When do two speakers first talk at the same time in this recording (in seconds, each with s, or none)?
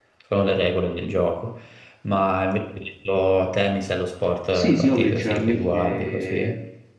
4.5 s